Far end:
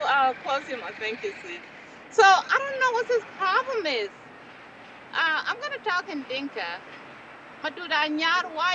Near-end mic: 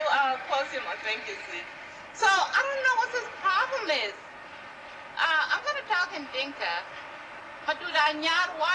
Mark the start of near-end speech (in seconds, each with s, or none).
none